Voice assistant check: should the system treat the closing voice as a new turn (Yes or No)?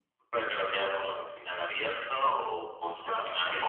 Yes